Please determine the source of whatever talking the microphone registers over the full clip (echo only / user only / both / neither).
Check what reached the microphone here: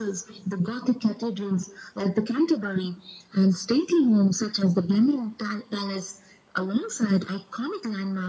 echo only